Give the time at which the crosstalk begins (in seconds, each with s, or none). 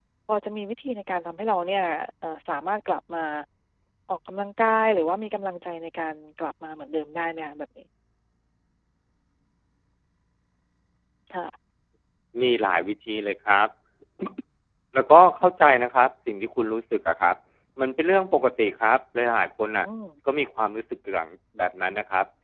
none